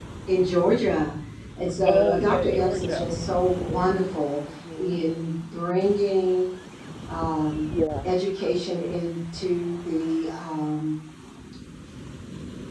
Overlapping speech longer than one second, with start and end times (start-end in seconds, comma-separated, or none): 1.8-3.1